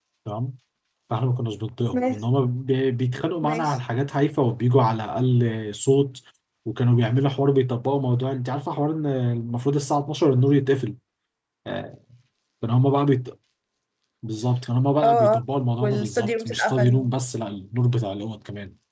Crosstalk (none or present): present